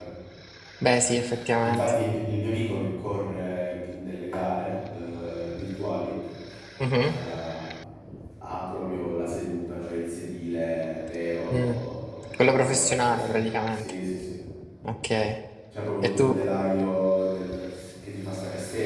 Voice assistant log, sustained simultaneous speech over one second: present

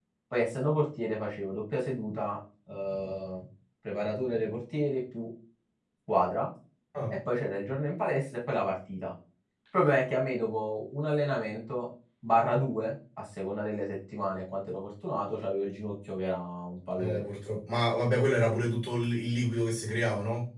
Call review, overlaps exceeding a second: none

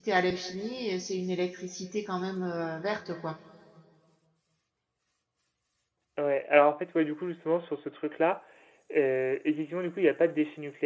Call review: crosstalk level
none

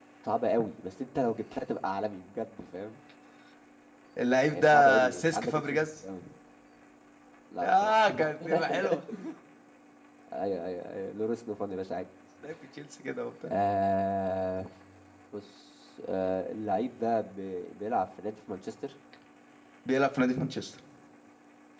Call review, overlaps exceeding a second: present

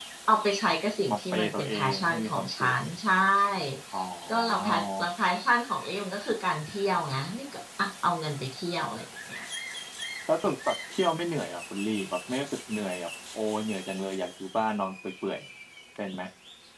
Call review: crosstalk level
present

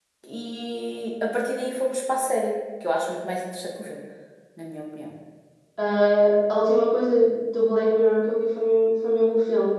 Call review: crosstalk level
none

